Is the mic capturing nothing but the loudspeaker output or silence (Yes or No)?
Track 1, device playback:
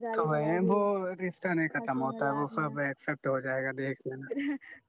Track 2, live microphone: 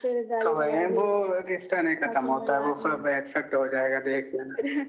Yes